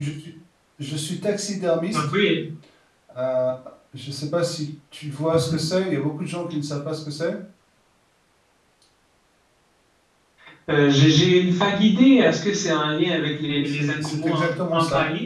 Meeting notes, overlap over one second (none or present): present